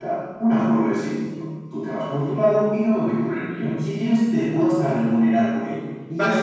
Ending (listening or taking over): taking over